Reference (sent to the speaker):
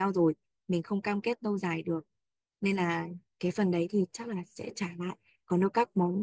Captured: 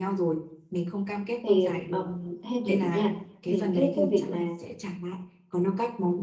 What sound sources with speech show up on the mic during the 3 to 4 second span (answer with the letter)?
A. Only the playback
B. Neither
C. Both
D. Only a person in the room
C